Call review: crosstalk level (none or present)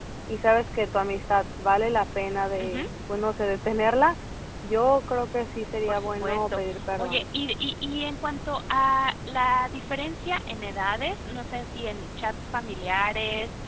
present